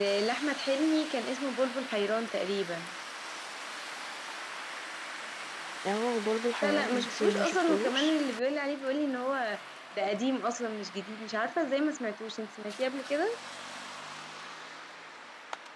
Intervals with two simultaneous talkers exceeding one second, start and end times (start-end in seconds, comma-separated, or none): 6.6-8.2